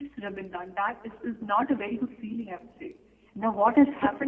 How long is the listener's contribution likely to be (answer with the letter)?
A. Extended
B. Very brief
B